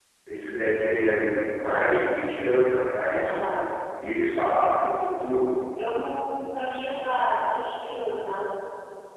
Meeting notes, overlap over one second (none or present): none